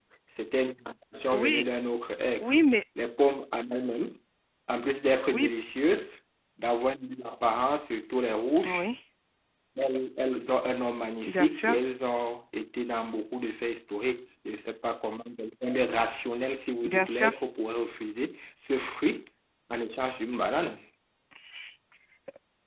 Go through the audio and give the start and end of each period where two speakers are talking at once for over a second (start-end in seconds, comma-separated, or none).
none